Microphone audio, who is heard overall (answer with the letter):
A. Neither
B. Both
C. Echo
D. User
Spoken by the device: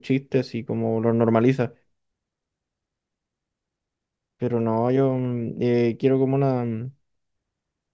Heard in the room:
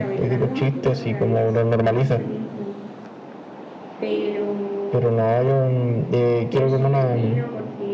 B